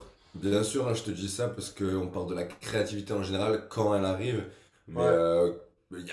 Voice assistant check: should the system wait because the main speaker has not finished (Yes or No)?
Yes